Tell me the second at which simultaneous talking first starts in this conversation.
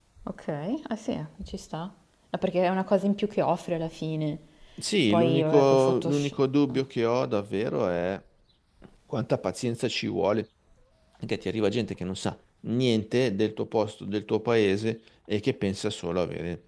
5 s

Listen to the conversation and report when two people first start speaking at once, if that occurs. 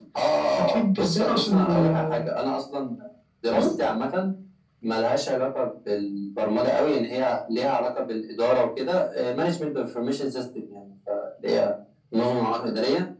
1 s

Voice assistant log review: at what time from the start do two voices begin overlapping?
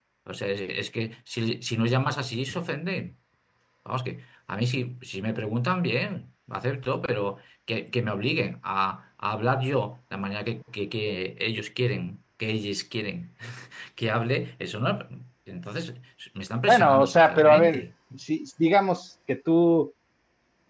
17 s

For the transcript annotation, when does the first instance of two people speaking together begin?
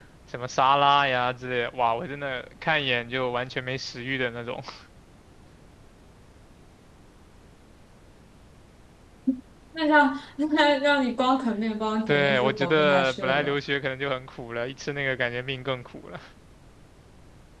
12 s

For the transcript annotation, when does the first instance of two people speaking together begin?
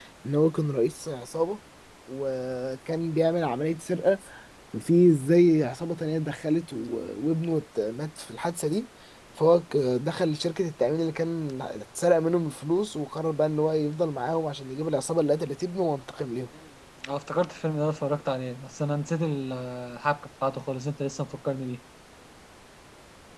none

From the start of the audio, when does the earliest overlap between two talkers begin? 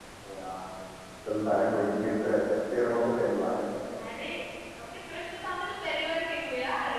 none

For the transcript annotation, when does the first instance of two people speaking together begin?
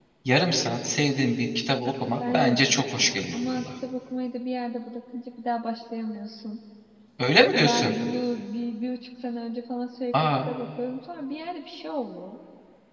2 s

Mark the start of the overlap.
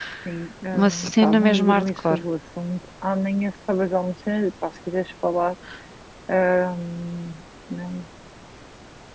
1 s

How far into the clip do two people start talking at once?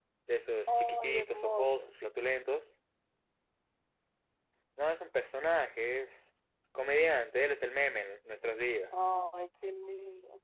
1 s

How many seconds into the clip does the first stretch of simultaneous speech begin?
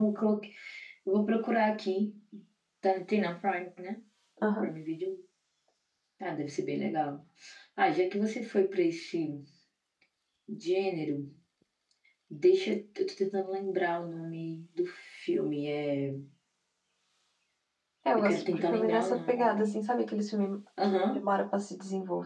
18 s

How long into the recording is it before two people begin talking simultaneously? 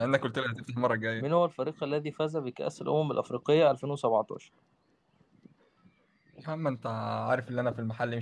none

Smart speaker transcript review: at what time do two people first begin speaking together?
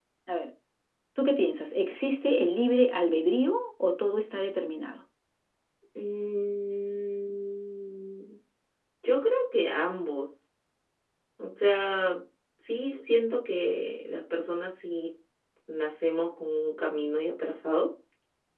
none

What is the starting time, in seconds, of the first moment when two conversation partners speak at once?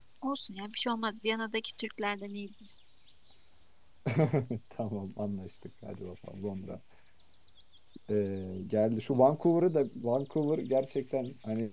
none

